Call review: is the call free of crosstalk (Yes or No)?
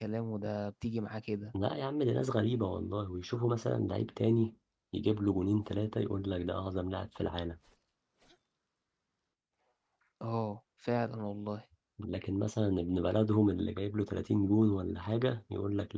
Yes